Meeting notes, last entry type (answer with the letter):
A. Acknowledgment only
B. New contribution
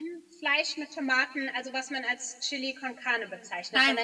A